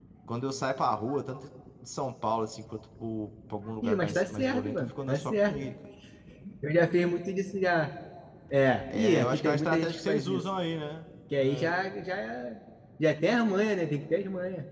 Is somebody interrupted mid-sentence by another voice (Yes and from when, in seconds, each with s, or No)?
Yes, from 3.8 s